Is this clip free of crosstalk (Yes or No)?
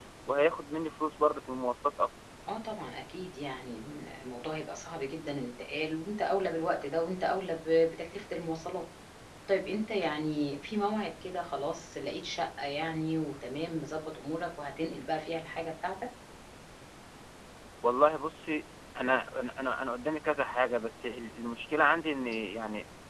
Yes